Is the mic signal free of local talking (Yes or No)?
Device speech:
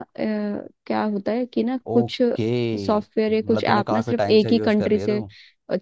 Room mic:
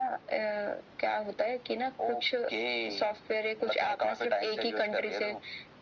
Yes